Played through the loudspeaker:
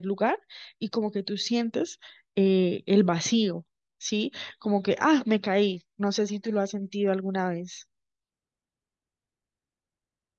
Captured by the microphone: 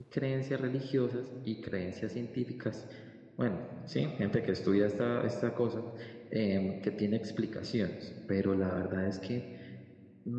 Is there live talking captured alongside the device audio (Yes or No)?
Yes